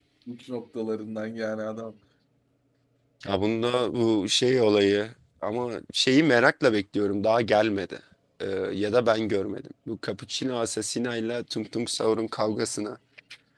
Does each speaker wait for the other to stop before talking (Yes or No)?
Yes